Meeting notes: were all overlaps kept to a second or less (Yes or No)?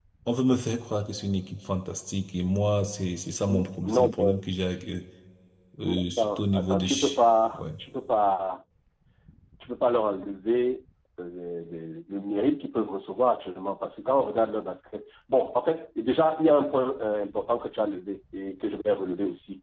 No